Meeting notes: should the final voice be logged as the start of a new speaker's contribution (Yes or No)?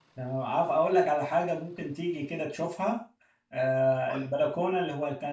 No